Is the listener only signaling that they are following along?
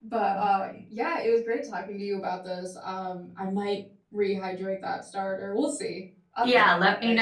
No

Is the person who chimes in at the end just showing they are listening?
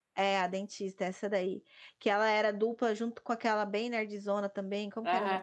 No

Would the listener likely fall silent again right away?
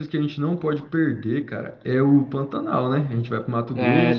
Yes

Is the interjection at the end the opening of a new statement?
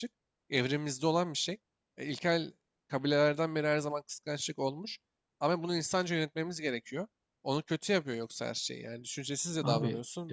Yes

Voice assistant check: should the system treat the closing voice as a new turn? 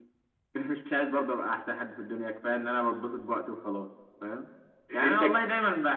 No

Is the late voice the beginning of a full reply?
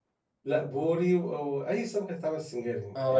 Yes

